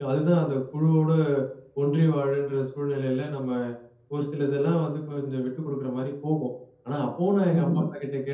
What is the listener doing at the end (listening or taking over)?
listening